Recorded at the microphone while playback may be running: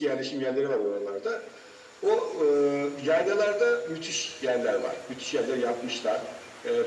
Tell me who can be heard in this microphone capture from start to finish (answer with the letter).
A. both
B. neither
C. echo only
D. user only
C